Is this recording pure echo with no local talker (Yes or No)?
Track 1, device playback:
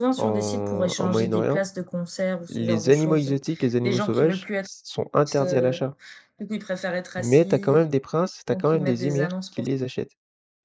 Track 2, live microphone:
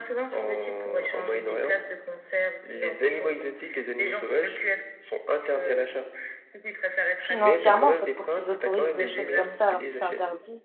No